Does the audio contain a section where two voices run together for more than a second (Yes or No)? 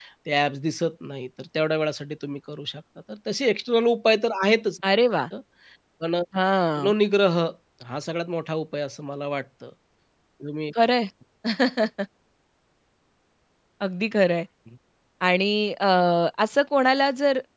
No